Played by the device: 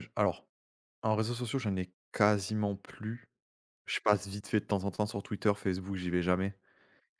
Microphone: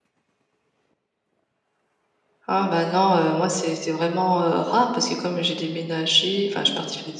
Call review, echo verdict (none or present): none